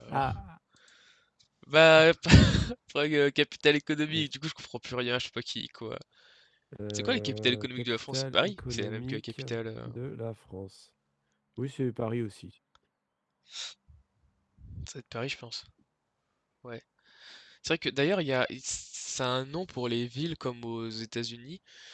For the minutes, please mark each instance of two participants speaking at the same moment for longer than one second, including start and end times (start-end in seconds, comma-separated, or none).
6.9-9.4